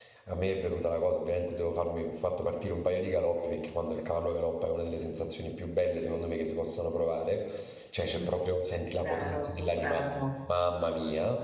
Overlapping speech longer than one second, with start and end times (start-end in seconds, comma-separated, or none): 9.0-10.3